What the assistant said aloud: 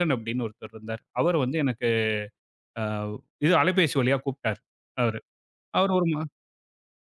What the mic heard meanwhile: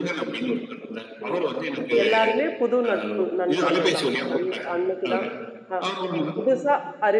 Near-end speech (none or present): present